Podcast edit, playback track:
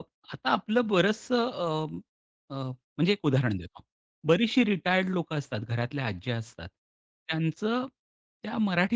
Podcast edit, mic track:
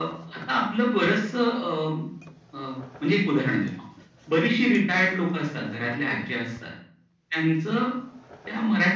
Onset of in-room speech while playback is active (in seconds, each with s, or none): none